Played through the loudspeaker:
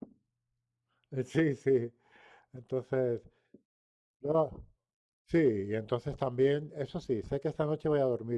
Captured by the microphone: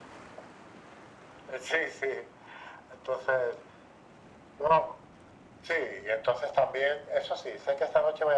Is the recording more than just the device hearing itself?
No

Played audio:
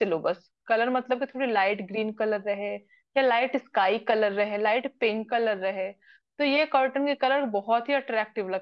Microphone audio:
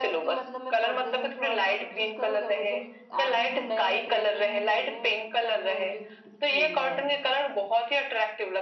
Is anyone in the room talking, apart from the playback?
Yes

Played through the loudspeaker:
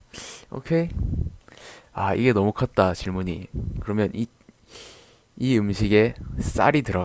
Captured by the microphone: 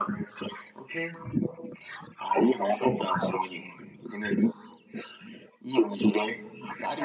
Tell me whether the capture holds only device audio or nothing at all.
Yes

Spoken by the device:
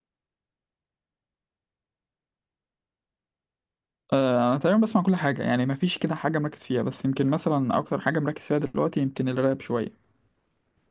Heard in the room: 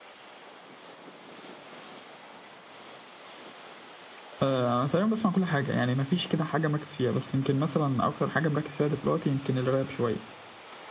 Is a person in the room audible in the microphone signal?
No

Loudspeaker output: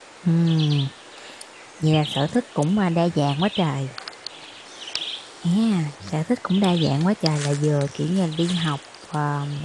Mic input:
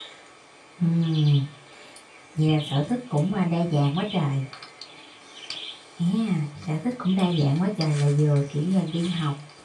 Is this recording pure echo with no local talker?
Yes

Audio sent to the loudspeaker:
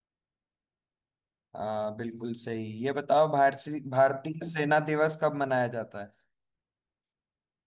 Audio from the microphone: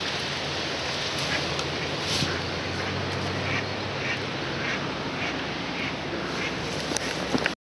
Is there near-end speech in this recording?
No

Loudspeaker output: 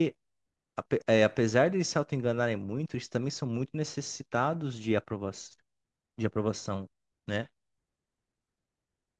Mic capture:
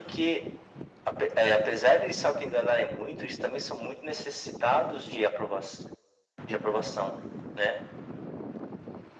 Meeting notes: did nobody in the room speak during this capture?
Yes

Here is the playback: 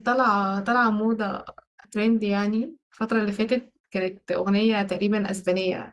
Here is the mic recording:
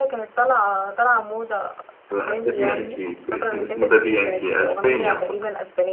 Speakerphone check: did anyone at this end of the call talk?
Yes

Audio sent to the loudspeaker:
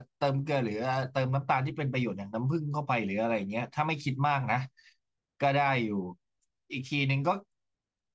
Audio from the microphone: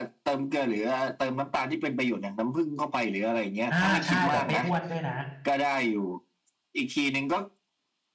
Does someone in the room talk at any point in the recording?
Yes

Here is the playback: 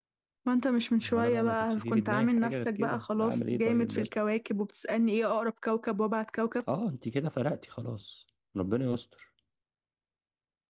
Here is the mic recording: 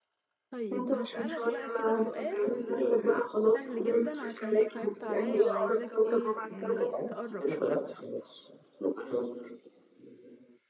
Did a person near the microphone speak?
Yes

